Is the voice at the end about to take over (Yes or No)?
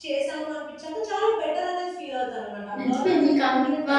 Yes